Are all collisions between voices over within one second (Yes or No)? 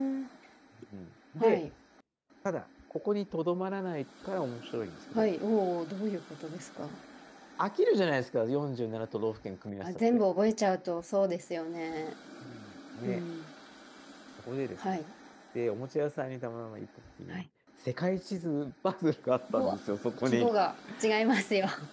Yes